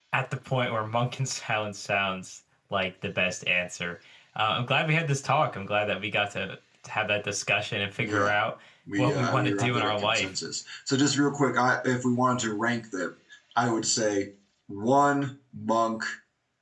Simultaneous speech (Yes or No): Yes